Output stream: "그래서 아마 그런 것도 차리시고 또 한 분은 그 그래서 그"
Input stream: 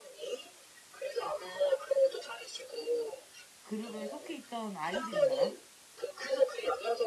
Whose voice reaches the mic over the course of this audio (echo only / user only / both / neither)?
both